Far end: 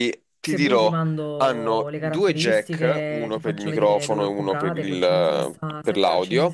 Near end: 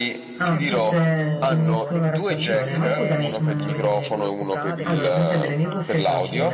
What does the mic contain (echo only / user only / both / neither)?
both